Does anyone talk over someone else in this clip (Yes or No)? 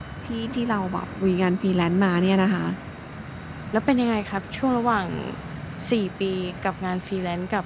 No